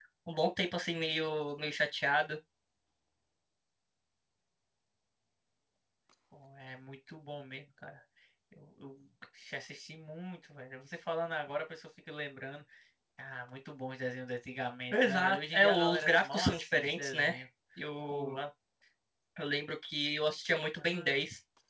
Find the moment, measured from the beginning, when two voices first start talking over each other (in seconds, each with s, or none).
14.9 s